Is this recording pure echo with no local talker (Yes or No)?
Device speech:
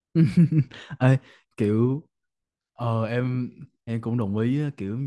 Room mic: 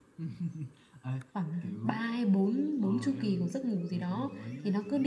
No